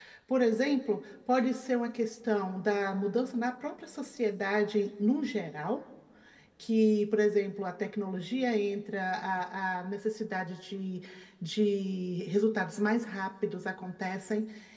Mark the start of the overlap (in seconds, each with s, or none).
none